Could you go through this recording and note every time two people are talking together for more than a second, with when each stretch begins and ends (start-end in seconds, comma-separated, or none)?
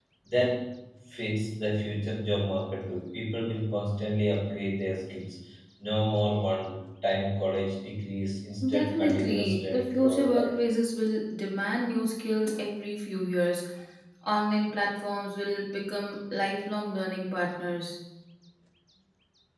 8.7-10.5